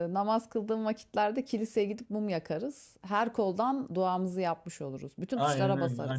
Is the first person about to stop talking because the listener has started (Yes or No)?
Yes